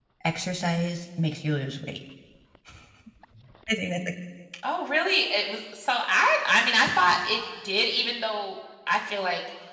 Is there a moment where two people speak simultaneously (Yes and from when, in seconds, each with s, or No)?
No